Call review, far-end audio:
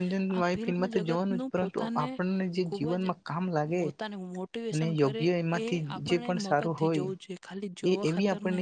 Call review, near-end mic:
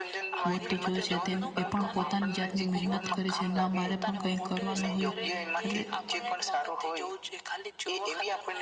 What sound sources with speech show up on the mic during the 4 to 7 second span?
both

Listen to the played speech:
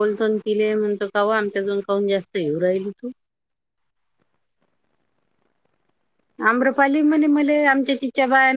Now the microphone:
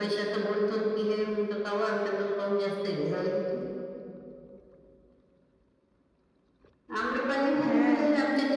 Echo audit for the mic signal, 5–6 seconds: neither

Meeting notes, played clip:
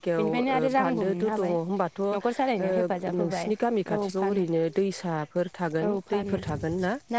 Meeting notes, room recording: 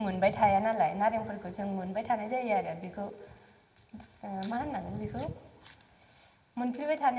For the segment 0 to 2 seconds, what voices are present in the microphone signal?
user only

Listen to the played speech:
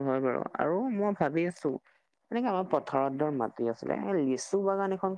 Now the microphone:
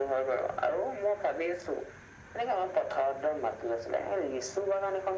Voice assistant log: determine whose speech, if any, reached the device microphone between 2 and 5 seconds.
echo only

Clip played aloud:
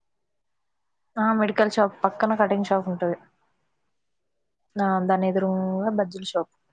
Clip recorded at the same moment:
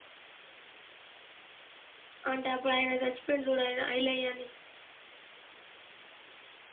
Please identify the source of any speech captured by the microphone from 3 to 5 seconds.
user only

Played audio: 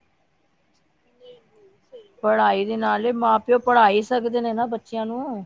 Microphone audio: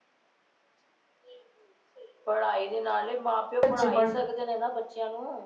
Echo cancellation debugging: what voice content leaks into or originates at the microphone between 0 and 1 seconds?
neither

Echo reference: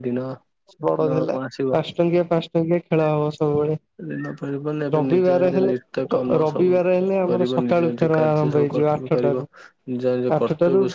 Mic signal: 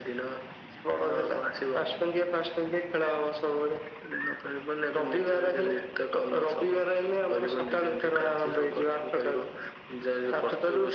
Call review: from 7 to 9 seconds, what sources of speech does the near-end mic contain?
echo only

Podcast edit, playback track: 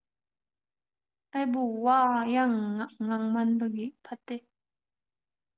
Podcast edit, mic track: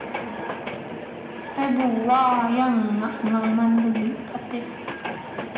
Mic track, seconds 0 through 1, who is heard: neither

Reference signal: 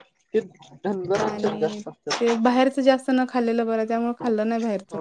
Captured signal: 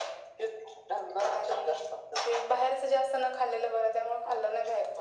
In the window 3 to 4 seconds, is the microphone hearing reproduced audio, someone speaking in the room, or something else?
echo only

